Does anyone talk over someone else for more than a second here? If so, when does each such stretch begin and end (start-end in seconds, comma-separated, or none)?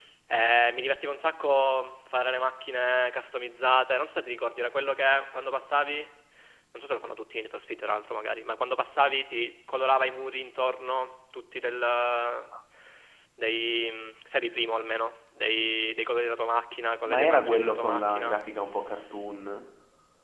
17.1-18.4